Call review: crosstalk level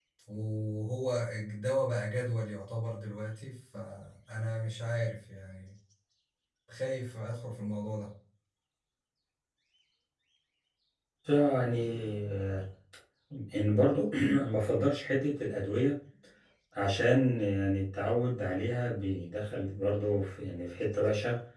none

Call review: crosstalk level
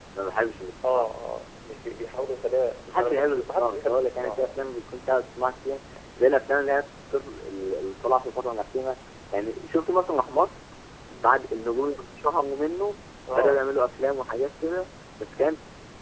present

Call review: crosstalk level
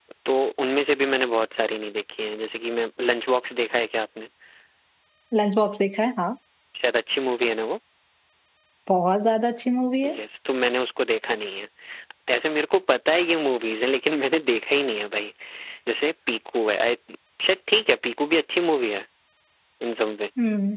none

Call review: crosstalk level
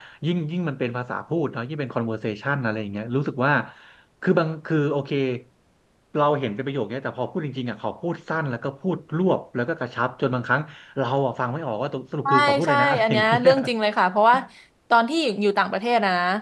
present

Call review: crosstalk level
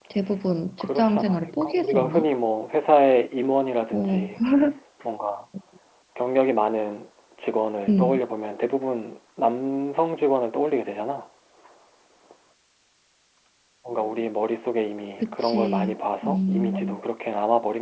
present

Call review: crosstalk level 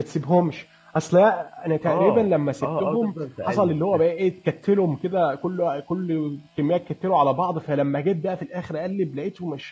present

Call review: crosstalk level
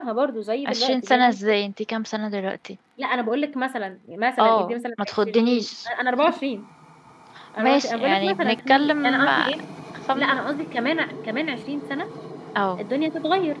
present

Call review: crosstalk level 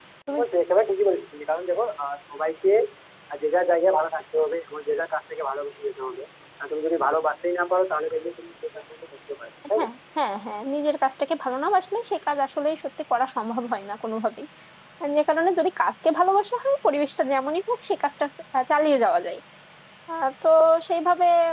none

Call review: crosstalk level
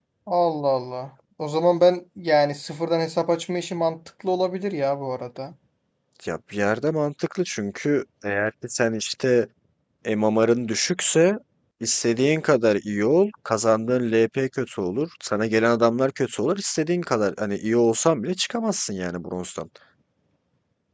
none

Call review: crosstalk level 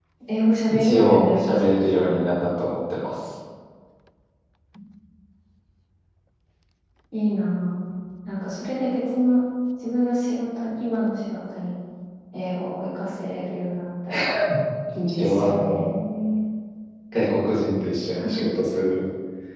present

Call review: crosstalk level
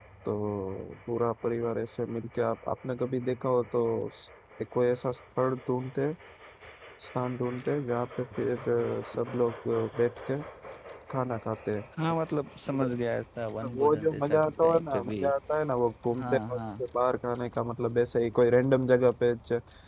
present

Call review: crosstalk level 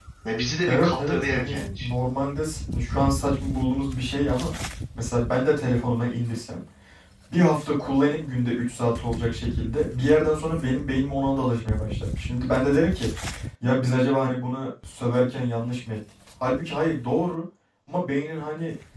present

